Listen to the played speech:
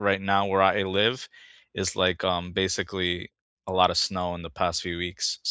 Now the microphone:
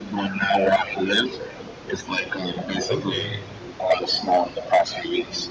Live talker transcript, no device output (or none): Okay.